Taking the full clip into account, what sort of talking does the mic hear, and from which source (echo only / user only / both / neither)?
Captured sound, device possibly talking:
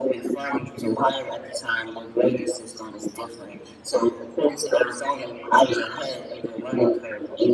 echo only